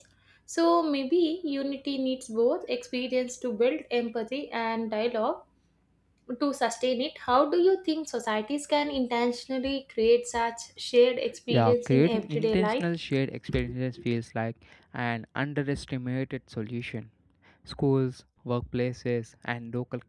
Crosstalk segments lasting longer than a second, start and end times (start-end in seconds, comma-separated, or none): 11.5-12.8